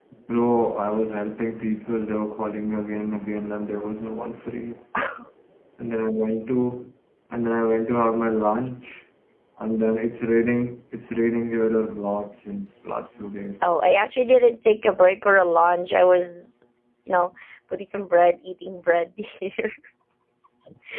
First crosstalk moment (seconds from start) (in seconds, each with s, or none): none